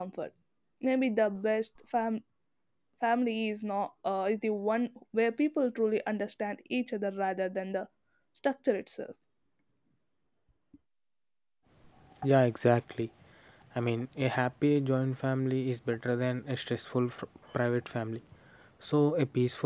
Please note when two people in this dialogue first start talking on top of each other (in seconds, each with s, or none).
none